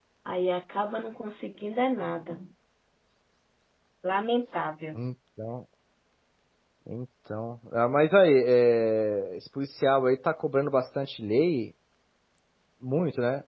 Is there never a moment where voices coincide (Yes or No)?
Yes